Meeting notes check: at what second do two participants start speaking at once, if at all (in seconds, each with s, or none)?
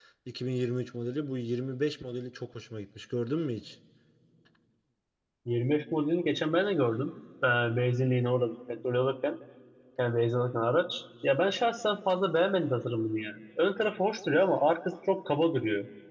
none